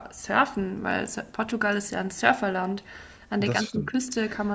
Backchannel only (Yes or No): Yes